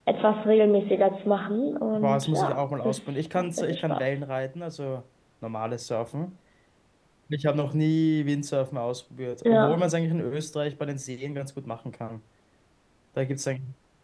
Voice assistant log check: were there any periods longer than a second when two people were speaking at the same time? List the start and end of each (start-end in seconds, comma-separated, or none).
1.9-4.2